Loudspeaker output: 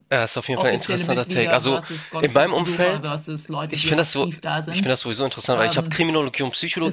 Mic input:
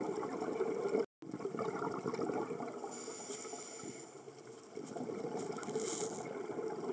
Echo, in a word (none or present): none